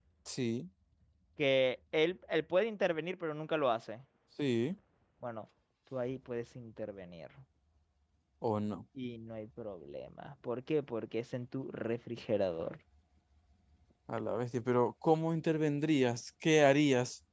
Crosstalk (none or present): none